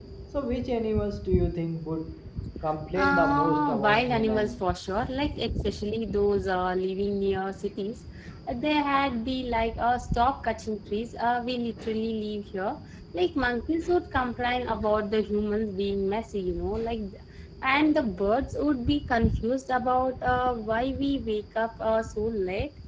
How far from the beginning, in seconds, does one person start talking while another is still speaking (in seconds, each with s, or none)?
2.9 s